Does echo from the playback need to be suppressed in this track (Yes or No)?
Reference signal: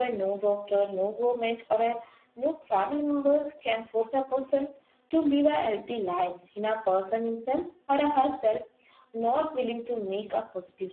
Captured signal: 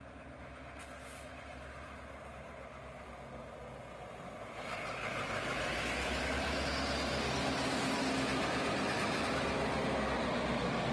No